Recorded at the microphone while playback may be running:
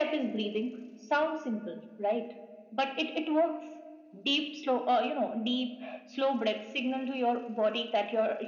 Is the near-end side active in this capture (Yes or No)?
No